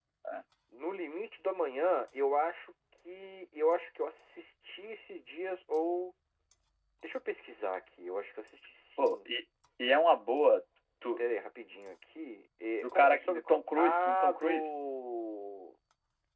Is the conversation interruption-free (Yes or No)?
No